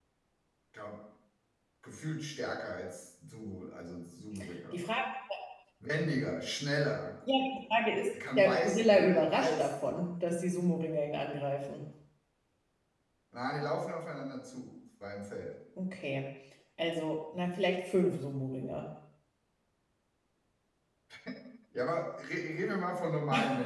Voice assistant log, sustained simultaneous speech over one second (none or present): present